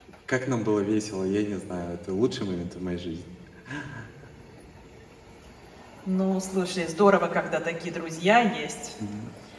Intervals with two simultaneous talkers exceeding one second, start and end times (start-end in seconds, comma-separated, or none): none